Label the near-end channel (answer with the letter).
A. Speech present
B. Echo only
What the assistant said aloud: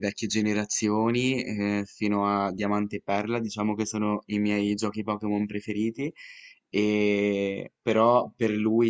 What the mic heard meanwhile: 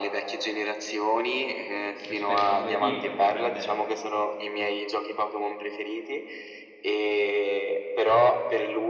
A